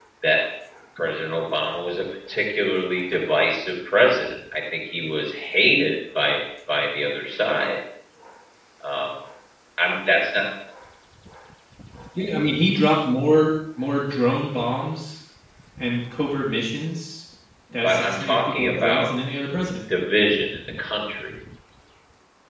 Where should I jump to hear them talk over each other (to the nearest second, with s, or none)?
18 s